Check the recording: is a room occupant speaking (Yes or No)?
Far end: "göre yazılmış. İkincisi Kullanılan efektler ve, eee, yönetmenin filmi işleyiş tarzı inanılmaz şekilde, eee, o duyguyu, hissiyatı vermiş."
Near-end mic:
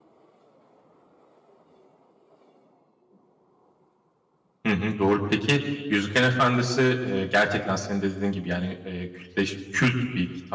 Yes